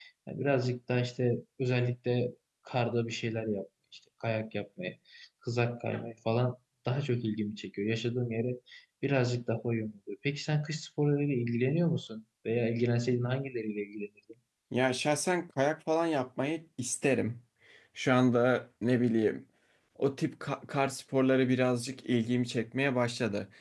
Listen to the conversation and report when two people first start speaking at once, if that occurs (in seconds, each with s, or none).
none